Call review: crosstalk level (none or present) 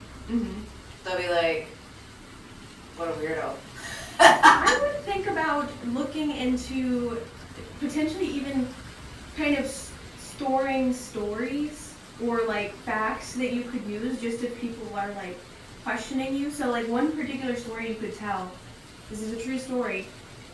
none